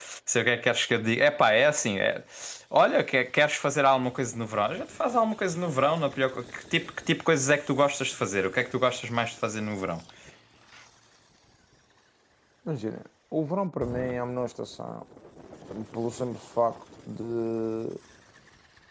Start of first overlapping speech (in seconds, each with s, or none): none